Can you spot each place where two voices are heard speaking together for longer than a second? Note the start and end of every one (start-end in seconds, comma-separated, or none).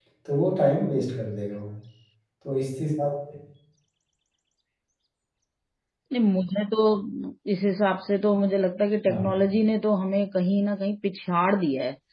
none